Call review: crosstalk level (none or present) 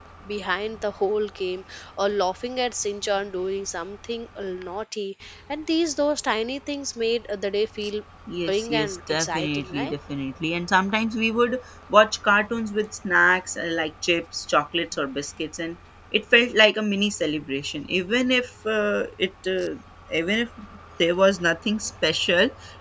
present